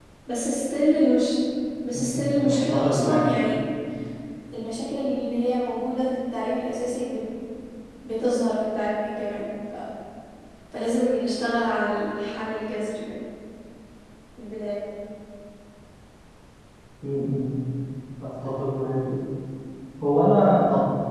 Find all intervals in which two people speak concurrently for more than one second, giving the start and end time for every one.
1.9-3.2

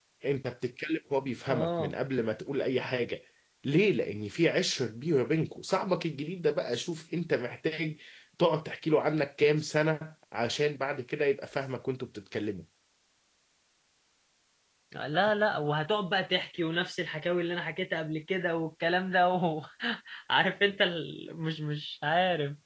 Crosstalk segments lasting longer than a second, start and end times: none

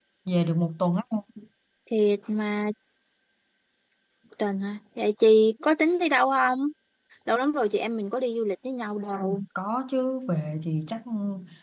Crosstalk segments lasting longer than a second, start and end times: none

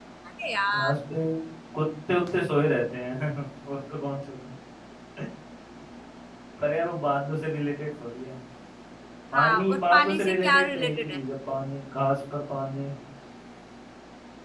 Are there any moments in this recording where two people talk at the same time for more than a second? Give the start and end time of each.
9.3-11.2

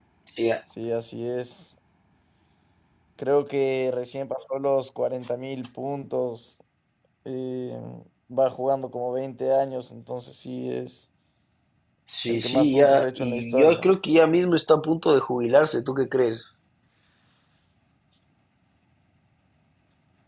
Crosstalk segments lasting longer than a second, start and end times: 12.3-13.9

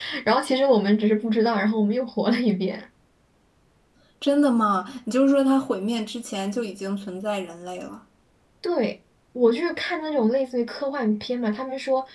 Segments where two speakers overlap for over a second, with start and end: none

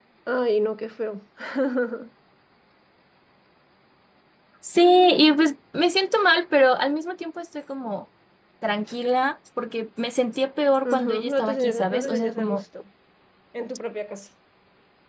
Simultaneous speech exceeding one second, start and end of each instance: 10.8-12.6

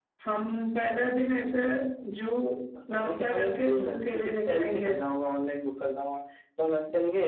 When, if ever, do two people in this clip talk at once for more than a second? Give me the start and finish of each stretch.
3.0-5.0

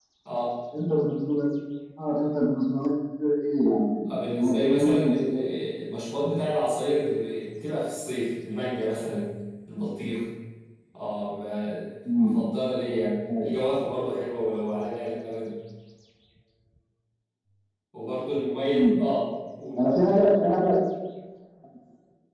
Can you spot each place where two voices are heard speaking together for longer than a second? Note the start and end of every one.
4.1-5.3

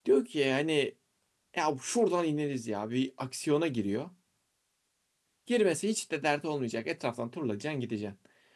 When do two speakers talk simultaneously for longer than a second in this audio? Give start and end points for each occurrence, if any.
none

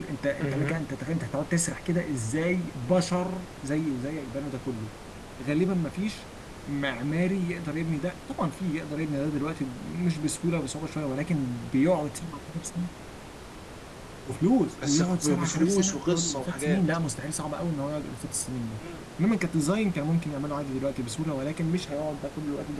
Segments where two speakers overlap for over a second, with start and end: 14.8-16.8

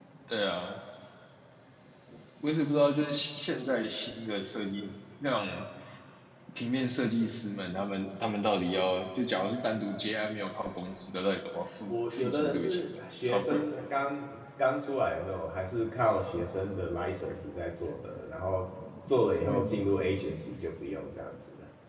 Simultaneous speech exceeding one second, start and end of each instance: 11.9-13.6

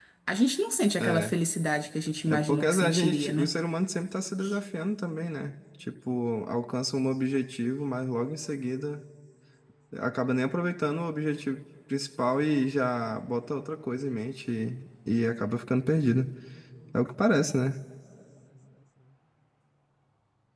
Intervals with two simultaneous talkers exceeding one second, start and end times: 2.3-3.5

